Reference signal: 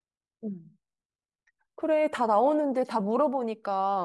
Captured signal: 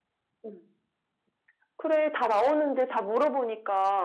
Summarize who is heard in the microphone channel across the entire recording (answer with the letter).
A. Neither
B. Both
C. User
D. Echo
D